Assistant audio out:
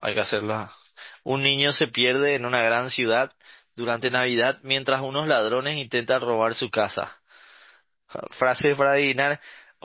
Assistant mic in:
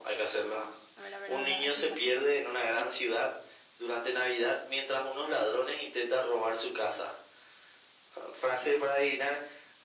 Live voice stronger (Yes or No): No